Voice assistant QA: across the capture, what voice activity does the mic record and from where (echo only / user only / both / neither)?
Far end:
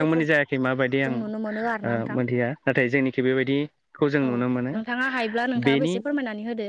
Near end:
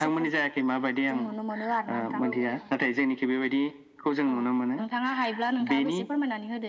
both